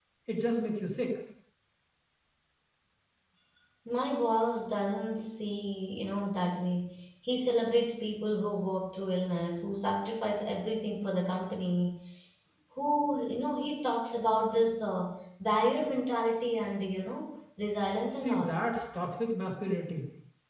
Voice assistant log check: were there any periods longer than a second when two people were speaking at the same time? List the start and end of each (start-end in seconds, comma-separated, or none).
none